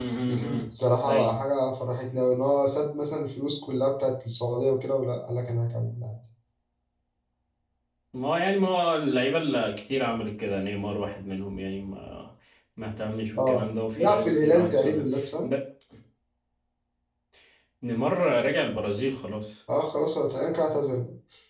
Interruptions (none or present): present